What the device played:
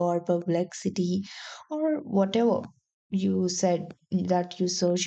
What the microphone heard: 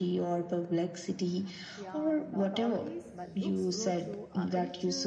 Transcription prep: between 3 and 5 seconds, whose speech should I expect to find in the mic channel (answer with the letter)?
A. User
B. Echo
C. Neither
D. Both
D